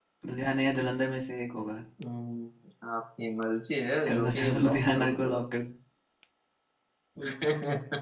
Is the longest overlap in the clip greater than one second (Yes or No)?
Yes